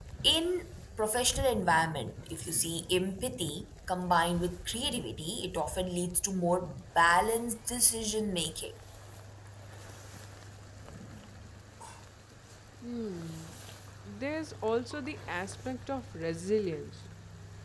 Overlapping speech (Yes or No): No